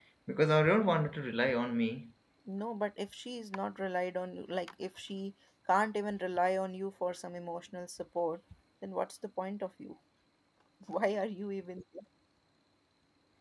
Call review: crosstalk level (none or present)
none